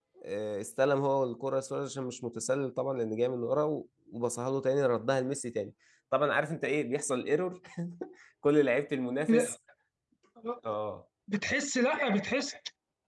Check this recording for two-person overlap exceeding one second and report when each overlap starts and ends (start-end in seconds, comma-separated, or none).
none